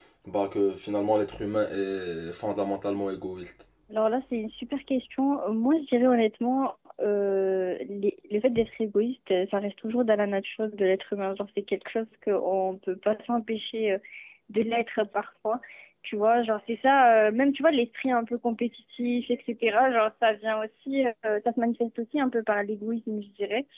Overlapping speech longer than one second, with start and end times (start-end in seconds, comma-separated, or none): none